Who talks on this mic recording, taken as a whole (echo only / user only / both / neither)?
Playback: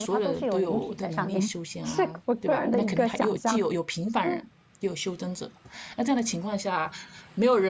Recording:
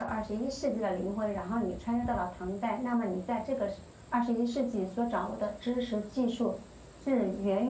user only